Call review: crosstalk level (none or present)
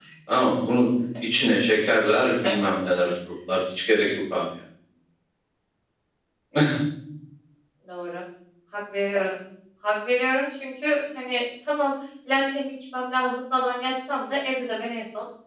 none